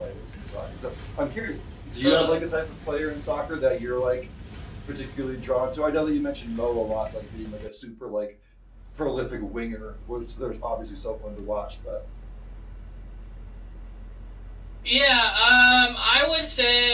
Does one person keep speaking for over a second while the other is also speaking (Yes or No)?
No